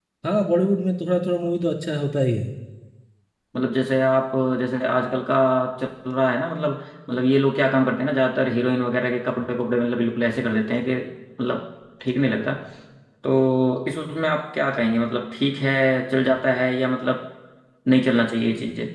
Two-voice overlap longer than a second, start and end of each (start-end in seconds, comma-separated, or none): none